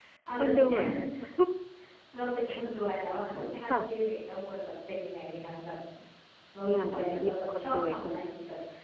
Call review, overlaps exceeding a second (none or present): present